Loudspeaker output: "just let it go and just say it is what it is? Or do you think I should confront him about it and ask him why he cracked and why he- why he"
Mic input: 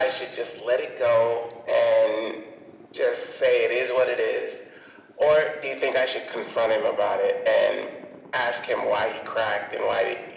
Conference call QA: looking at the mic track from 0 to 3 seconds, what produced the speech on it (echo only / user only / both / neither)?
echo only